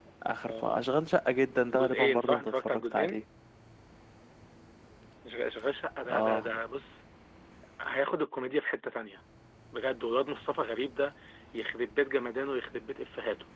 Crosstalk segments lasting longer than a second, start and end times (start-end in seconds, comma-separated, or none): 1.7-3.2